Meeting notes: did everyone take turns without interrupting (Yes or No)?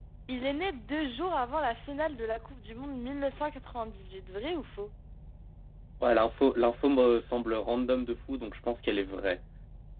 Yes